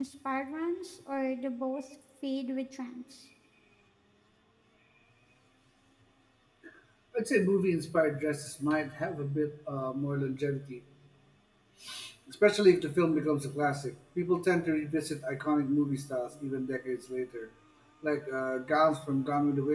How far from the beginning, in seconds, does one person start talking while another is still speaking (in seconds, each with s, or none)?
none